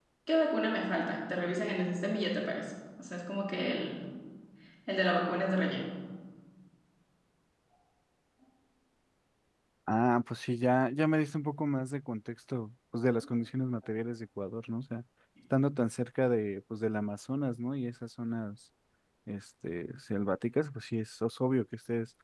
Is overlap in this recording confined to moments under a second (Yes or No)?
Yes